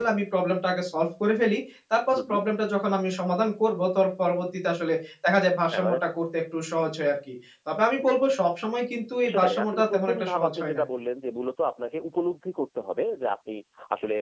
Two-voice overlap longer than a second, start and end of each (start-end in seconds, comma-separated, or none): 9.3-10.8